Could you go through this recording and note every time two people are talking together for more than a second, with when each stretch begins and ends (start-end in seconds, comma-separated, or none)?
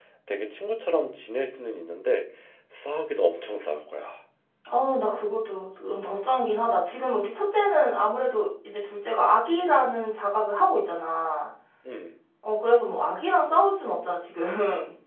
none